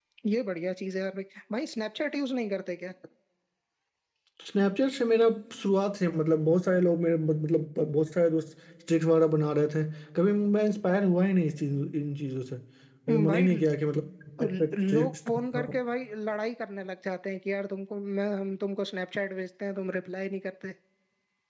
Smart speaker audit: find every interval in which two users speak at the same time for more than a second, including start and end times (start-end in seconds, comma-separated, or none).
14.5-15.7